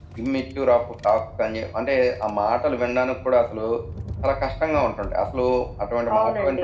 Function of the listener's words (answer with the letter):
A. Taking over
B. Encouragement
A